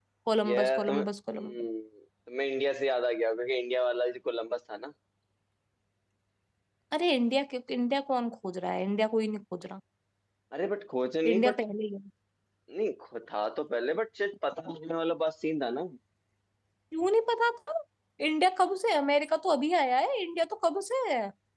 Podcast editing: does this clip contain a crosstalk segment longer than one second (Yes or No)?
Yes